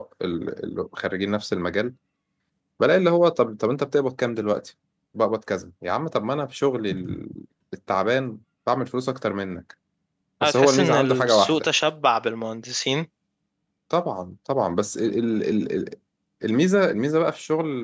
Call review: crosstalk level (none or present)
present